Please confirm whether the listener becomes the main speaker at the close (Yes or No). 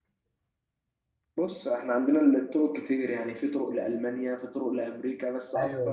Yes